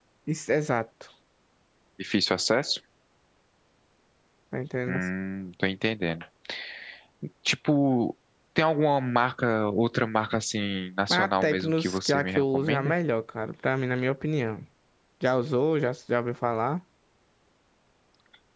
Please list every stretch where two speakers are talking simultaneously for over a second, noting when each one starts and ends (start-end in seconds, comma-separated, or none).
11.1-12.9